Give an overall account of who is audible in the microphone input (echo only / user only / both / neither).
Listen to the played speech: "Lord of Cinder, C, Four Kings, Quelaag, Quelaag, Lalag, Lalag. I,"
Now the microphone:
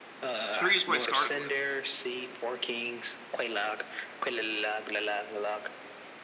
both